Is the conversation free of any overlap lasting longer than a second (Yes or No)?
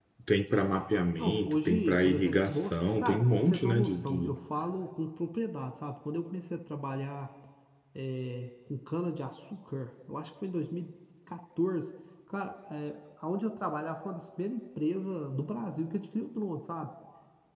No